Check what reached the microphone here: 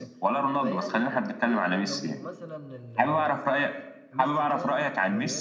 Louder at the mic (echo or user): echo